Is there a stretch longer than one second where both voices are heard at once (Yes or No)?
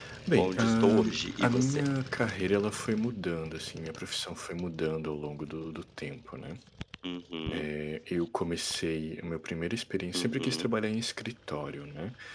Yes